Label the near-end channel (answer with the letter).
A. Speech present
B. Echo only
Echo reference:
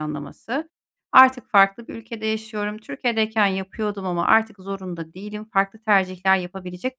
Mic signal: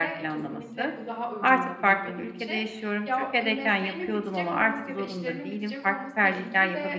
A